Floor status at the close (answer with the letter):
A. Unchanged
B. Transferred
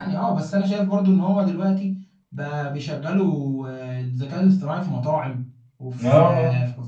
A